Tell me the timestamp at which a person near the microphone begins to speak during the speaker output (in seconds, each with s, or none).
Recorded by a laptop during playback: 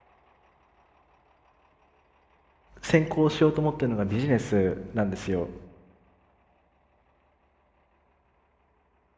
2.8 s